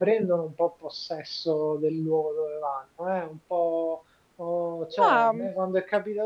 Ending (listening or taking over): listening